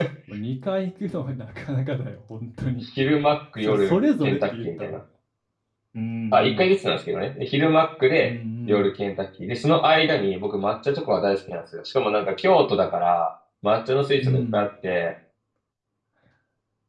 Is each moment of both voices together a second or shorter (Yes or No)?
No